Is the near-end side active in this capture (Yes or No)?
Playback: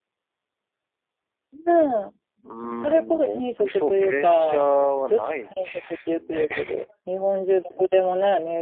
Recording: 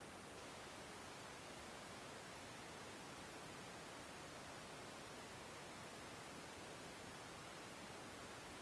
No